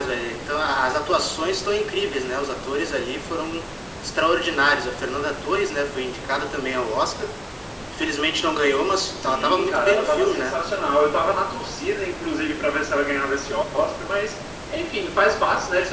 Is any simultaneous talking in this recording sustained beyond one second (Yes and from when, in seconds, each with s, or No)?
Yes, from 9.3 s